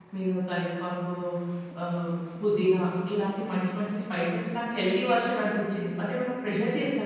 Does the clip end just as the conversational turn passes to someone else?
Yes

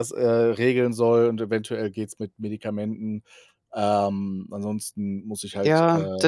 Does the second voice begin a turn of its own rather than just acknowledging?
Yes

